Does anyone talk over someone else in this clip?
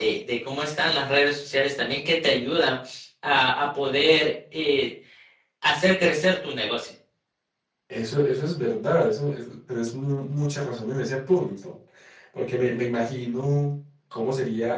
No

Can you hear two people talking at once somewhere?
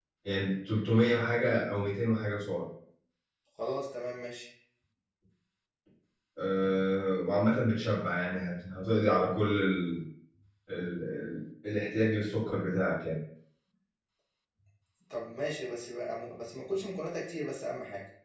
No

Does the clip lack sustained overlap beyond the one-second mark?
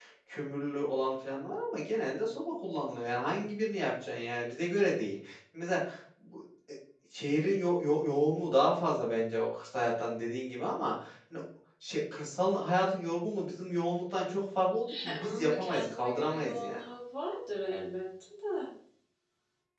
No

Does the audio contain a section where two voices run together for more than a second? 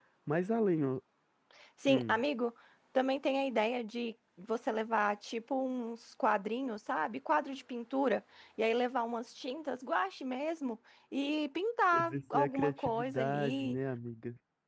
Yes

